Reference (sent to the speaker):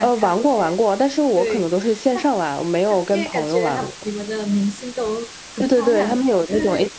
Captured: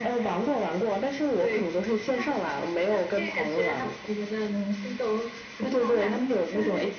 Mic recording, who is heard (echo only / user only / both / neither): echo only